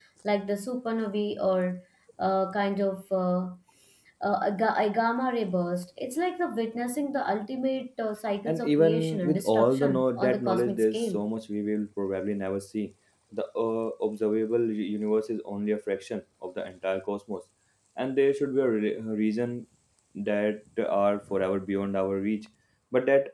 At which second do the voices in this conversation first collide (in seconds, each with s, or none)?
8.5 s